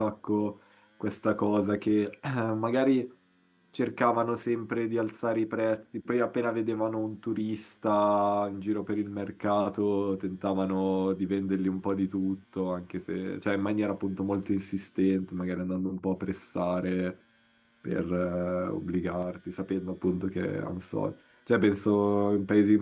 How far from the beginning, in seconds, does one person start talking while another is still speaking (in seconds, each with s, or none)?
none